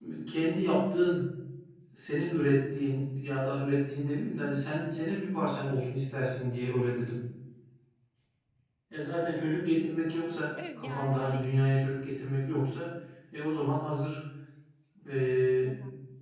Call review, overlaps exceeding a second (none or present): present